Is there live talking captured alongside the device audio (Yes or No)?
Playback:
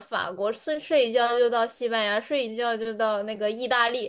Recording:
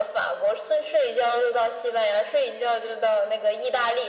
No